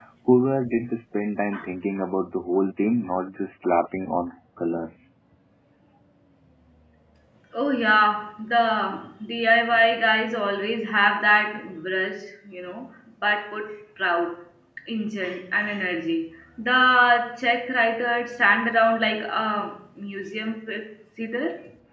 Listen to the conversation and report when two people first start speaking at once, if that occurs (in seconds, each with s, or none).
none